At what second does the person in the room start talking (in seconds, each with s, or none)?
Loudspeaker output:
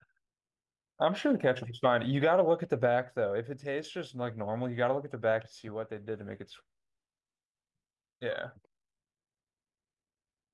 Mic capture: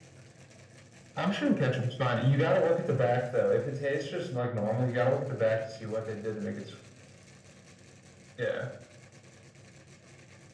none